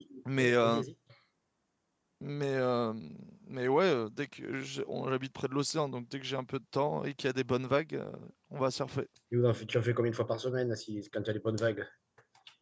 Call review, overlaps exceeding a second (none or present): none